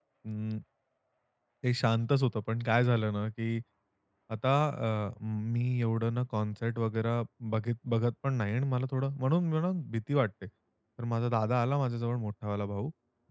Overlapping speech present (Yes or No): No